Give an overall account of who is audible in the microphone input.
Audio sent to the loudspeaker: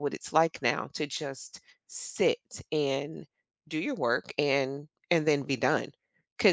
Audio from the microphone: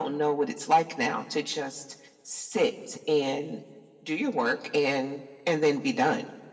echo only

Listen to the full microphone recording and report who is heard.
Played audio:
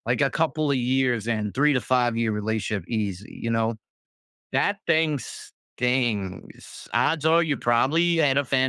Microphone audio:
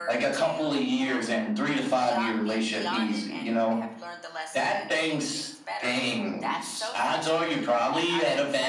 both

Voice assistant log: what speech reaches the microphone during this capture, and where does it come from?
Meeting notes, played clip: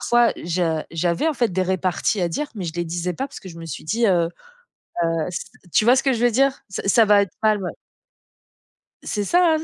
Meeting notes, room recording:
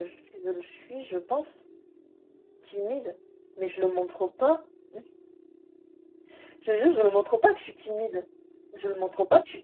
user only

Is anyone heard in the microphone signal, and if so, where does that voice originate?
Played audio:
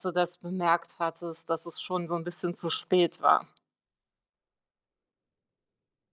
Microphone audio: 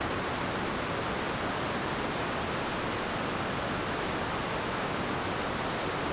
neither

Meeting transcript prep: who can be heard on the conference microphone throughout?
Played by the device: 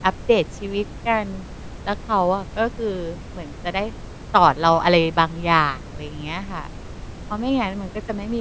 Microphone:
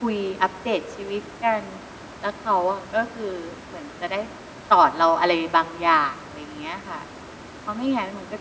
echo only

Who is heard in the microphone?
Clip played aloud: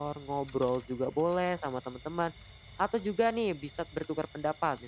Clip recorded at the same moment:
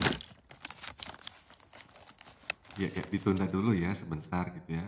user only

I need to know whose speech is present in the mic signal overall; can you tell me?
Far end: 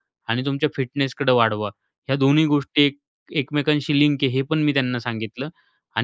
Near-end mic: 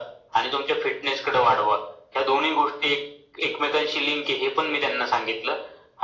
echo only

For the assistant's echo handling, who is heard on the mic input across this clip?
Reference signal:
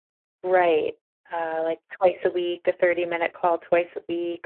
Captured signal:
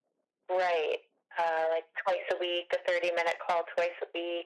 echo only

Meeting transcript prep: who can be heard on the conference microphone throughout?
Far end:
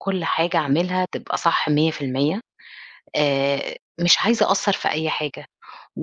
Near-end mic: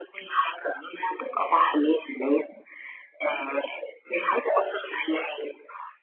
echo only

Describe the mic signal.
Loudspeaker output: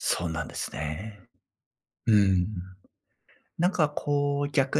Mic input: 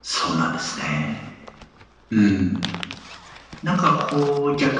echo only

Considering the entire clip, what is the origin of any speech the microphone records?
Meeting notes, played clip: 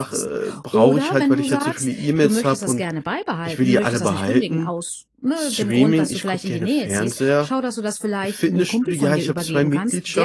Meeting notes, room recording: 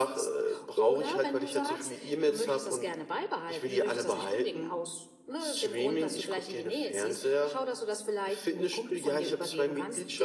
echo only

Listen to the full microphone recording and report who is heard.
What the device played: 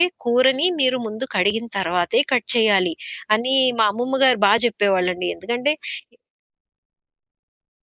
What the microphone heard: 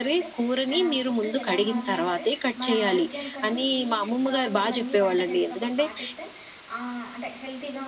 both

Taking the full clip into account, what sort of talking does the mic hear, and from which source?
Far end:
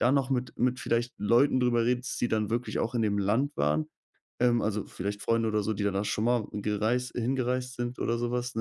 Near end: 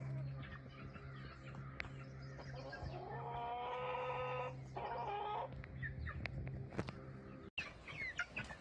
neither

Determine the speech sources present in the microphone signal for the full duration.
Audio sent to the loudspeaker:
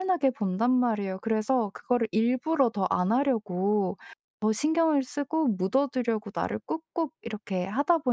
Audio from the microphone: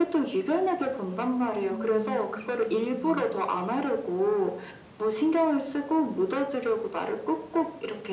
both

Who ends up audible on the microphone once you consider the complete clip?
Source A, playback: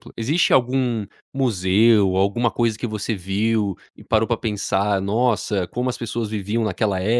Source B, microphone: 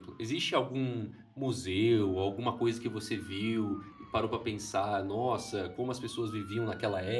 echo only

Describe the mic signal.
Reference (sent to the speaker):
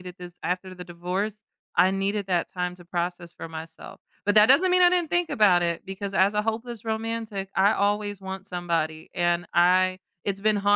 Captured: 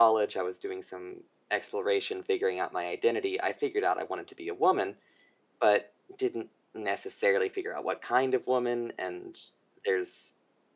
user only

